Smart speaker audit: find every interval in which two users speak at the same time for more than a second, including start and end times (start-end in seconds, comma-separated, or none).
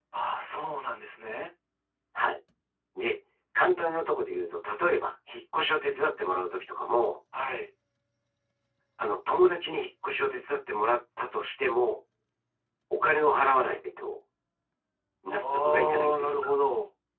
15.3-16.5